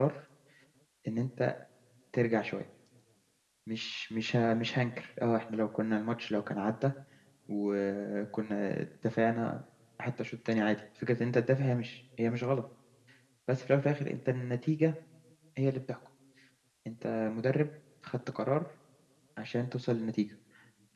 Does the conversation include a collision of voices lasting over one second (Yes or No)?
No